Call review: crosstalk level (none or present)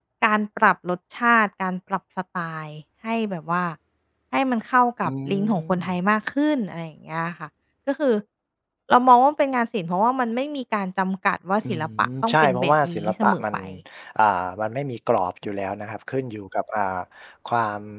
present